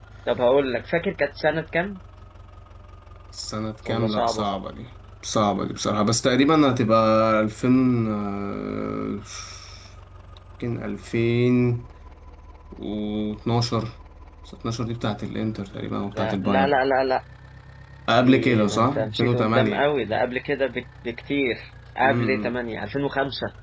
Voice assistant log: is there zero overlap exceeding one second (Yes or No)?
No